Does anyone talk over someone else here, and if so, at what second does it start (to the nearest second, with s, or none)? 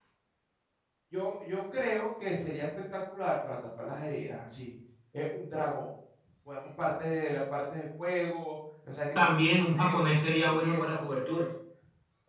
9 s